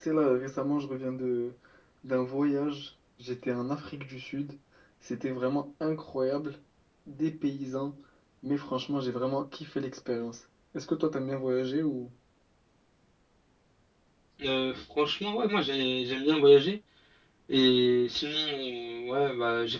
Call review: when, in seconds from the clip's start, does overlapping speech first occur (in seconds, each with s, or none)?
none